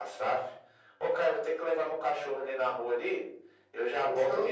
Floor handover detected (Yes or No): No